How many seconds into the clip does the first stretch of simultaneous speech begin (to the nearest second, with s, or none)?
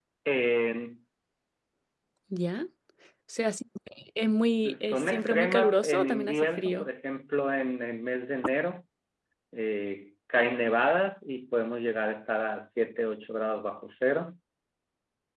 5 s